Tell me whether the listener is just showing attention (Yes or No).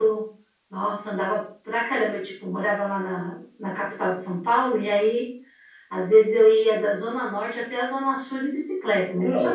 No